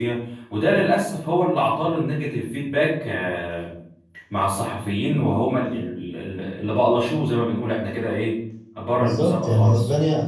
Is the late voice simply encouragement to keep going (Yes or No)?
No